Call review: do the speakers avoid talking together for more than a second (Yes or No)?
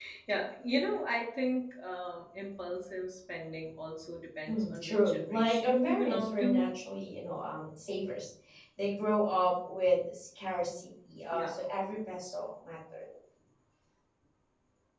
No